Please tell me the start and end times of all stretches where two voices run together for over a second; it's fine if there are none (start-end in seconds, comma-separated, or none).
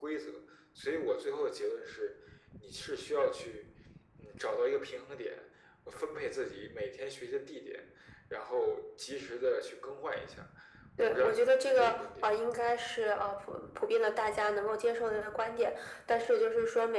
11.0-12.3